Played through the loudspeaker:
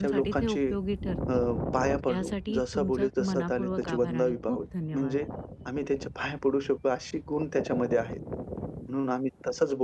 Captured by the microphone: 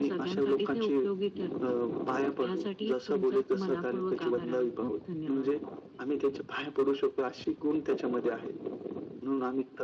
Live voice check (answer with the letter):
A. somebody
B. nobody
B